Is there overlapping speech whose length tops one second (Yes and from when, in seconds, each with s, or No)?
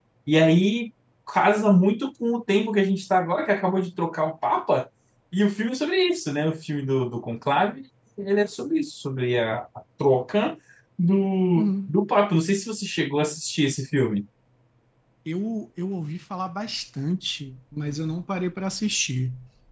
No